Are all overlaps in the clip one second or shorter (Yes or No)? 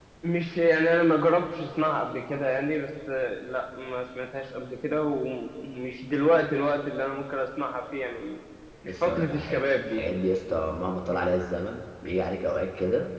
No